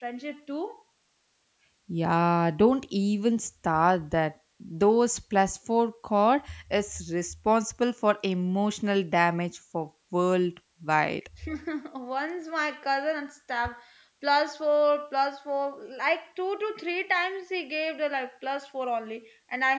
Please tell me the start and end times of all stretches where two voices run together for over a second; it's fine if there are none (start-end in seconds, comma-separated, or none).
none